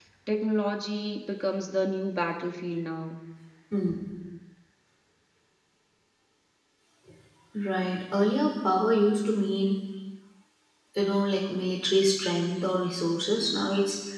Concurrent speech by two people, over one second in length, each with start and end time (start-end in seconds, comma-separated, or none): none